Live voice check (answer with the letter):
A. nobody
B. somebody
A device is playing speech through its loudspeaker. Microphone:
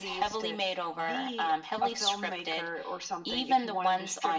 A